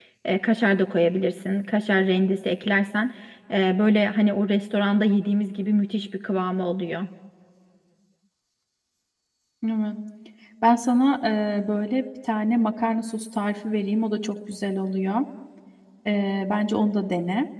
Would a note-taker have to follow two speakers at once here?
No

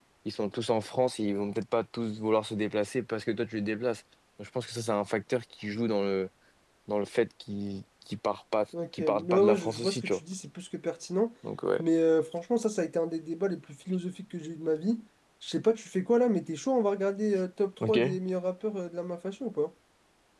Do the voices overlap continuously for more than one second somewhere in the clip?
Yes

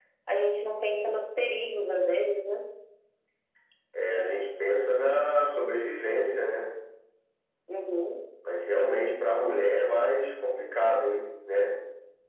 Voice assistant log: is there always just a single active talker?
Yes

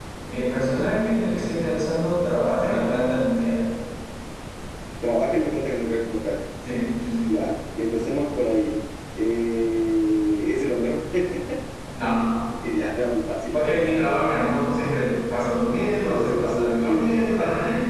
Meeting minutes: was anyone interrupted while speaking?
Yes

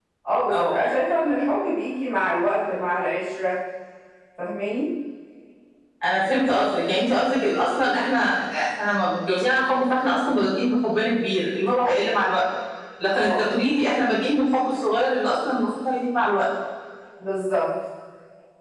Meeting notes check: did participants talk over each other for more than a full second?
No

